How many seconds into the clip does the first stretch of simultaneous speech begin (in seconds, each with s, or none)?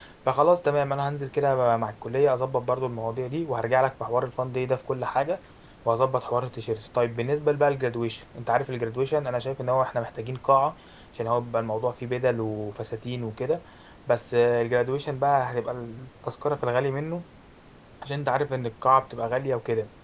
none